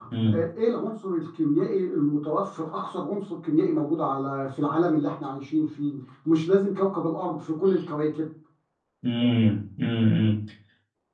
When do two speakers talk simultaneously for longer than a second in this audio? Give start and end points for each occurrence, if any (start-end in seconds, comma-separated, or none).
none